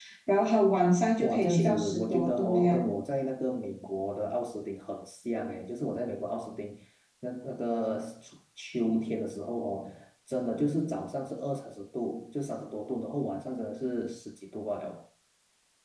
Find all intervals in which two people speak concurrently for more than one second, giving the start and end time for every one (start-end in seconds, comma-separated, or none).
1.2-2.9